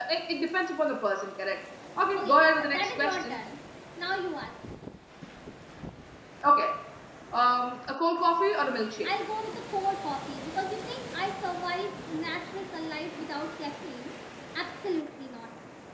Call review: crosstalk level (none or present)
present